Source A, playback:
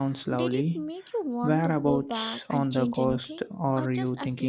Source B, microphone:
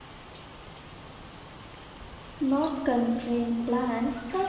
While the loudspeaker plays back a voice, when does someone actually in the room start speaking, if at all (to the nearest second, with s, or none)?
2 s